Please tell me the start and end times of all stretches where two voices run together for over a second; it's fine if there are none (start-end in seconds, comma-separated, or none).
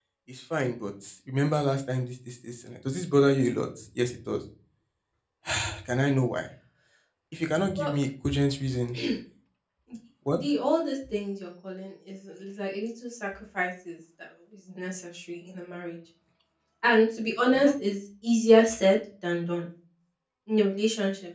none